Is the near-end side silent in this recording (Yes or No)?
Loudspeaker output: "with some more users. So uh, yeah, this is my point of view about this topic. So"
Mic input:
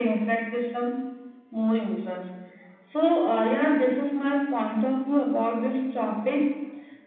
Yes